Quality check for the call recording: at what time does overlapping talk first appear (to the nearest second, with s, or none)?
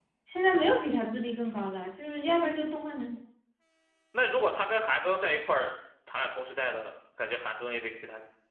none